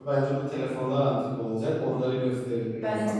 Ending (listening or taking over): taking over